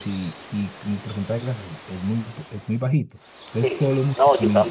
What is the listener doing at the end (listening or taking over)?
taking over